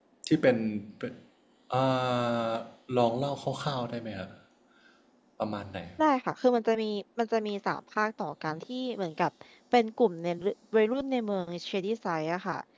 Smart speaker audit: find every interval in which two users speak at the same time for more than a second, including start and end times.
none

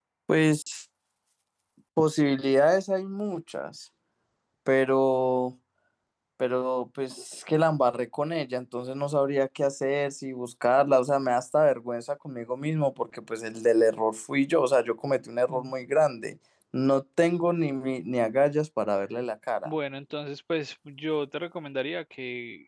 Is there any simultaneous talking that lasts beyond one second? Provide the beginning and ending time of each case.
none

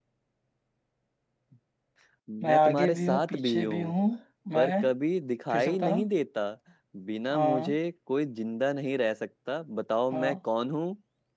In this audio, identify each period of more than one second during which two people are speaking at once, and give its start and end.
2.4-3.9

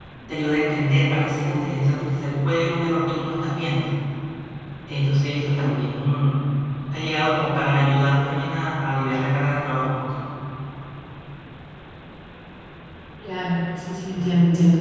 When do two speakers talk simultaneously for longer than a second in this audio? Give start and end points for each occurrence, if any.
none

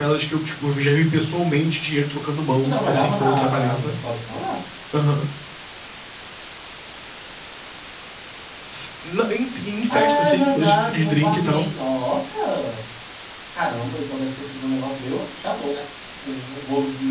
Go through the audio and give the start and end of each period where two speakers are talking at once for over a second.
2.6-4.0, 9.9-11.6

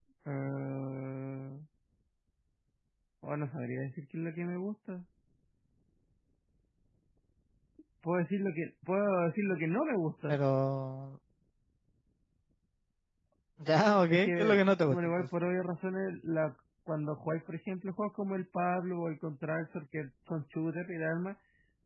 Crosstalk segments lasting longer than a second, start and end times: 14.1-15.3

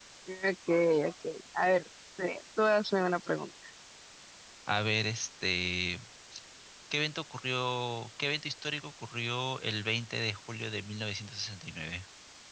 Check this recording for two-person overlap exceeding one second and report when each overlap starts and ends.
none

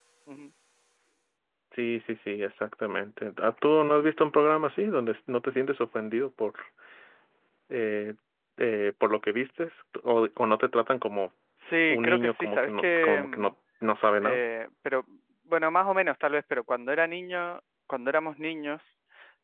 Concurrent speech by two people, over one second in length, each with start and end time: 11.9-13.5

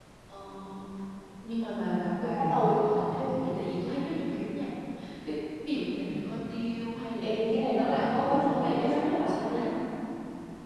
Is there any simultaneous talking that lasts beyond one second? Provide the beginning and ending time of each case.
7.8-9.7

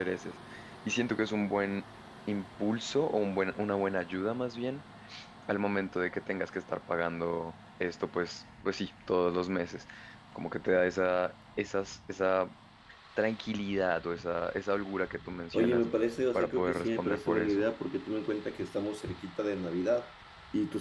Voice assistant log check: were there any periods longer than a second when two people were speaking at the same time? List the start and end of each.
16.3-17.6

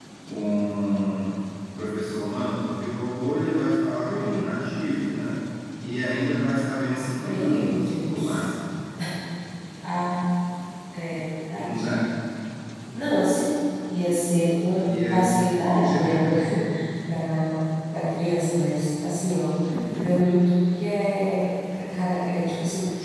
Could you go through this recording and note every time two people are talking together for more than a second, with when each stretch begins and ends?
7.2-8.5

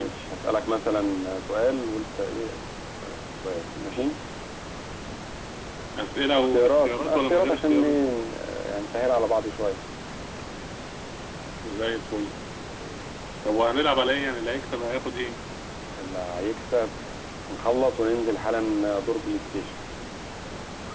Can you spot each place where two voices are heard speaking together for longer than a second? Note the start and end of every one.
6.3-8.0

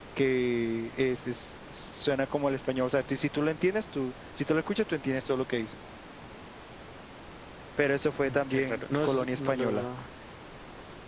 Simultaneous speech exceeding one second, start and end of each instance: 8.2-9.8

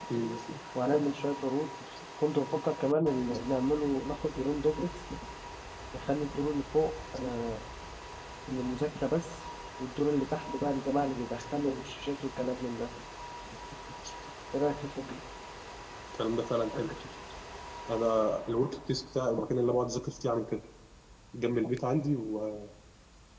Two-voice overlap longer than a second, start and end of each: none

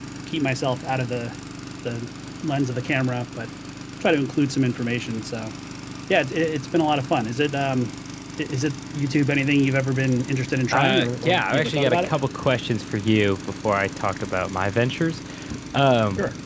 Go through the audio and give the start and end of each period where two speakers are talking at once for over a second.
10.7-12.1

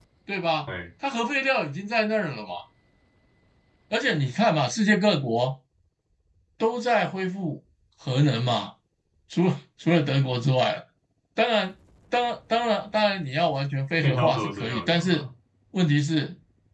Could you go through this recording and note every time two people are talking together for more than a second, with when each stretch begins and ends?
14.0-15.2

